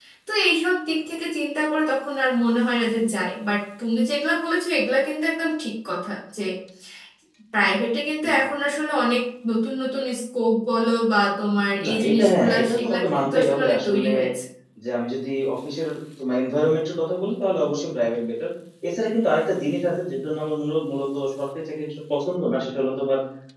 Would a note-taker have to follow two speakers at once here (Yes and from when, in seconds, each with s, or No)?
Yes, from 11.8 s